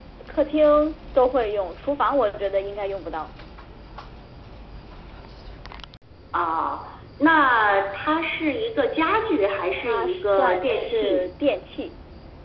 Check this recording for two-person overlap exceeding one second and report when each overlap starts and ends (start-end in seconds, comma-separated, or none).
9.8-11.3